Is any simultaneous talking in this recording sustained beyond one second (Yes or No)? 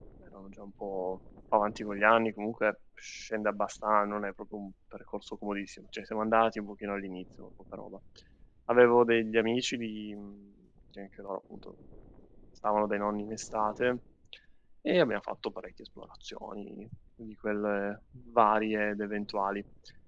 No